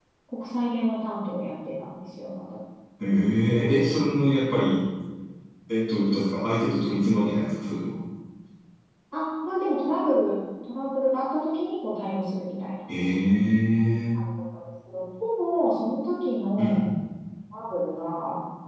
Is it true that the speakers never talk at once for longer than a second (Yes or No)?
Yes